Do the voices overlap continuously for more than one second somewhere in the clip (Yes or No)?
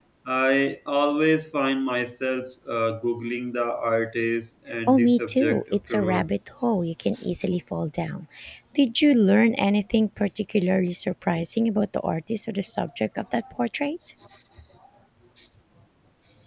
Yes